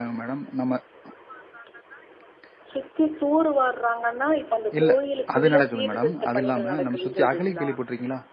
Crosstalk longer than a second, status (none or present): present